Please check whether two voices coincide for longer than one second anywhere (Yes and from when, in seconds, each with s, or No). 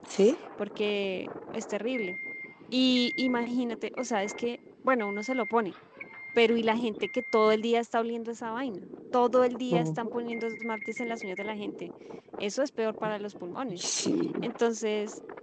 No